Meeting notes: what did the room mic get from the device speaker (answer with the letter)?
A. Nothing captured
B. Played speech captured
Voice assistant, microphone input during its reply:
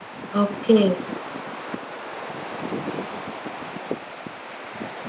A